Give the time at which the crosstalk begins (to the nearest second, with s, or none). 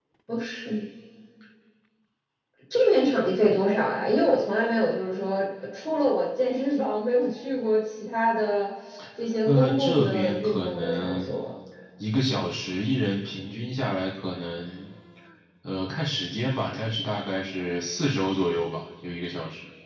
9 s